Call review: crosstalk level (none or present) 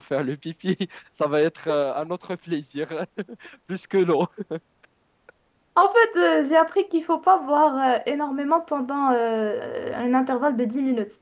none